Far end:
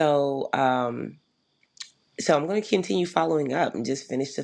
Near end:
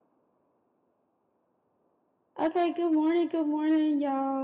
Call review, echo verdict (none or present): none